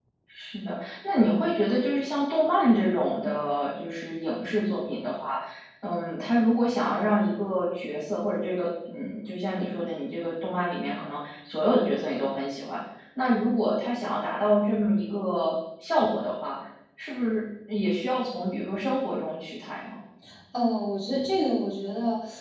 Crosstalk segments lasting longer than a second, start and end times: none

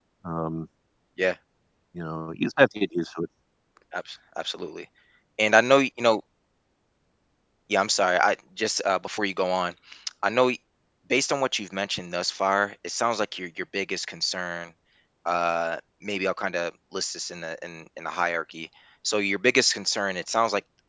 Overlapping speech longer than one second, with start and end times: none

